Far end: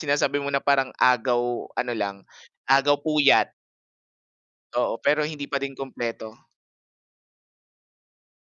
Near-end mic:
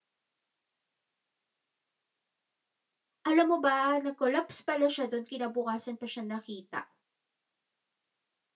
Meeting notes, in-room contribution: present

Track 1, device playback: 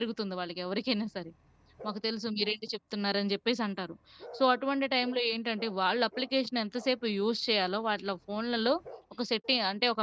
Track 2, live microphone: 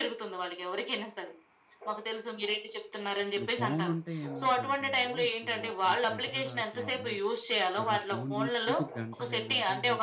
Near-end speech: present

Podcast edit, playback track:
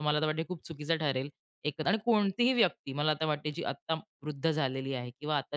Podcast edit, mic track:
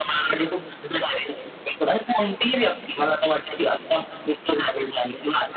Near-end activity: none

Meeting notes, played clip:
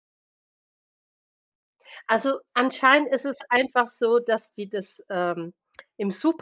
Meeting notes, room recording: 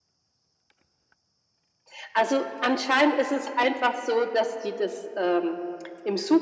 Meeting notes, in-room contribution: none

